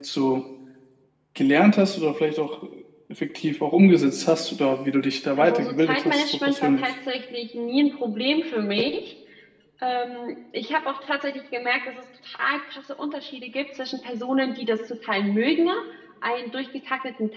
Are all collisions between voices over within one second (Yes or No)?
No